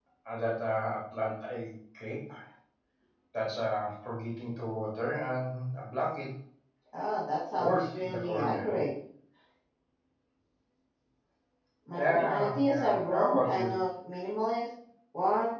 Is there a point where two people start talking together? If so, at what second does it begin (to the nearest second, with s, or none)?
8 s